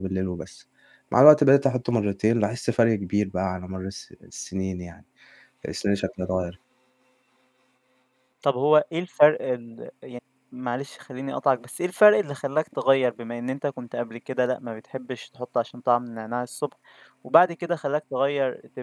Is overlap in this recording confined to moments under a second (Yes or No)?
Yes